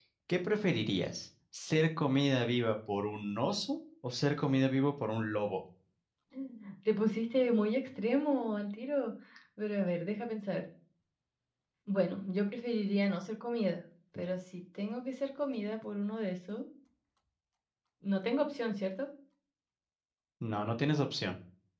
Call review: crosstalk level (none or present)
none